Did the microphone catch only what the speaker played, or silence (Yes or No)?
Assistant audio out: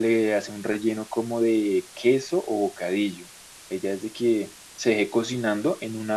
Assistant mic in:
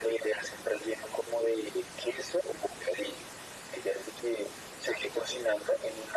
Yes